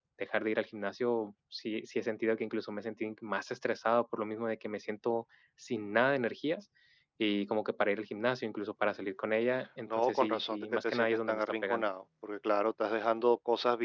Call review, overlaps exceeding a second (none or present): present